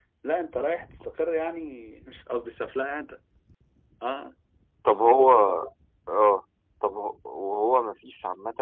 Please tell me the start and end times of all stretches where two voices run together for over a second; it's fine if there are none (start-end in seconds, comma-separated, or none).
none